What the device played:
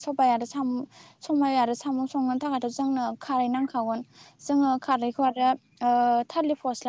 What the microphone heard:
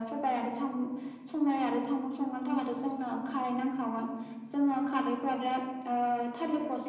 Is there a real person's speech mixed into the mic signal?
No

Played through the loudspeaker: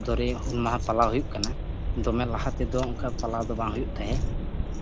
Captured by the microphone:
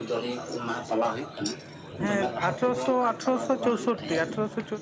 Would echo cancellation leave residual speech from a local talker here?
Yes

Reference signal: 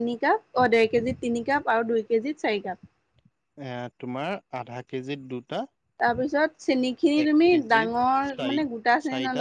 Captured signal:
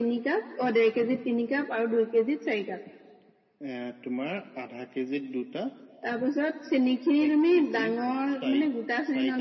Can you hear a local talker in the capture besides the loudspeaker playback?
No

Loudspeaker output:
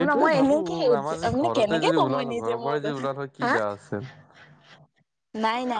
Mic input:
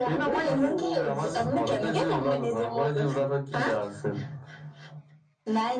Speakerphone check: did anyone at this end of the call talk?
No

